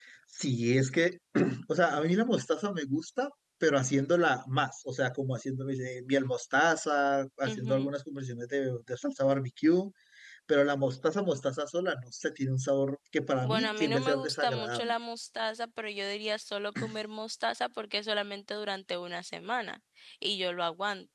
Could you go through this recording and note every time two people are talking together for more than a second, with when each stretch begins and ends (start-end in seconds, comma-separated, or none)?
13.4-14.9